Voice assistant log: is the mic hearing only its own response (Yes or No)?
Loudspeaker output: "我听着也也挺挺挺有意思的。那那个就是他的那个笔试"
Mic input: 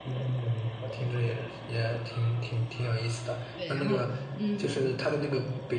No